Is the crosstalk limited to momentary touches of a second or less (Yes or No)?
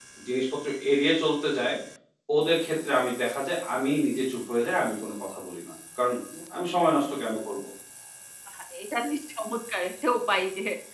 Yes